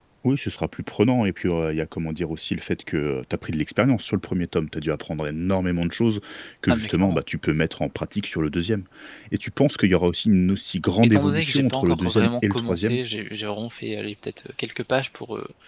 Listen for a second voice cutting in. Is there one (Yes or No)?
Yes